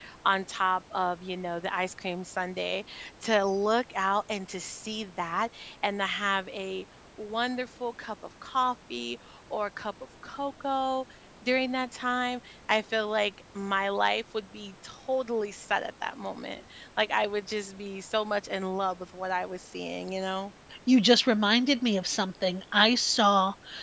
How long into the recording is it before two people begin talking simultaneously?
none

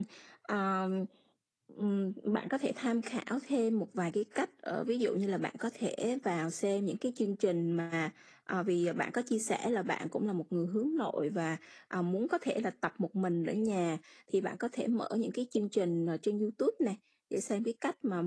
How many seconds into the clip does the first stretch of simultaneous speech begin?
none

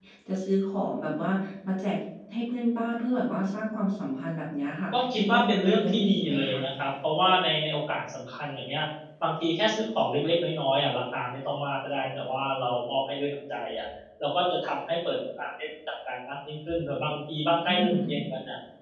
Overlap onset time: 4.9 s

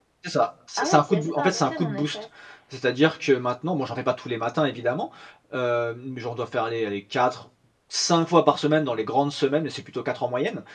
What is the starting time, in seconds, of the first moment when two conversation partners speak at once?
0.8 s

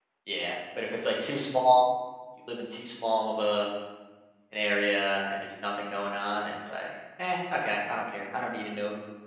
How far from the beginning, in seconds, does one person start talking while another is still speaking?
none

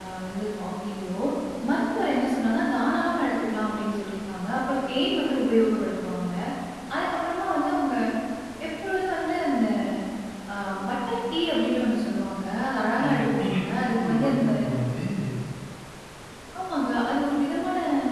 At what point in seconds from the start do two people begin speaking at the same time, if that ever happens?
13.0 s

